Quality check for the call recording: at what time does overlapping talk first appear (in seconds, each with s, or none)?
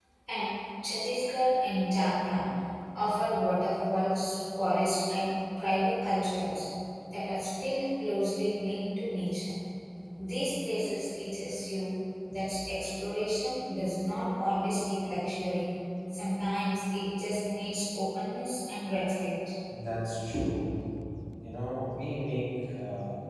none